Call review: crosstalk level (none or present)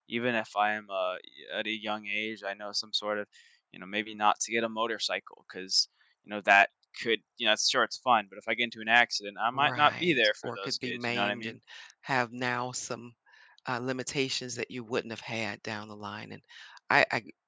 present